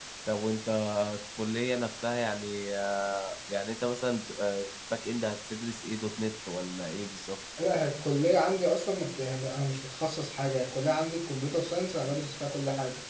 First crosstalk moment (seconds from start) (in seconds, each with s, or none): none